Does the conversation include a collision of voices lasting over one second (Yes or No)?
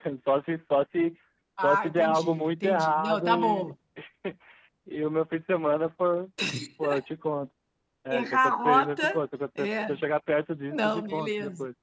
Yes